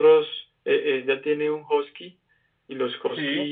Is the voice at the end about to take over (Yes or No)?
No